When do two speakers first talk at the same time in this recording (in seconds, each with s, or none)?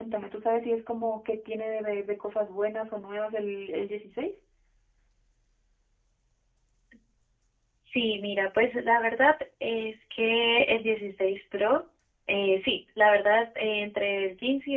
none